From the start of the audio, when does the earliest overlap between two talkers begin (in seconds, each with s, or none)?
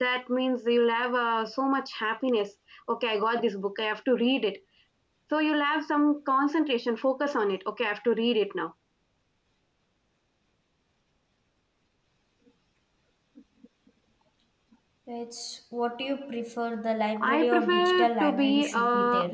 17.2 s